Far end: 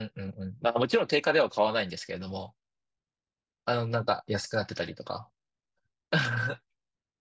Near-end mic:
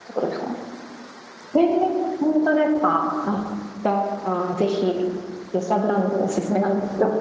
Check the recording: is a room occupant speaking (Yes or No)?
Yes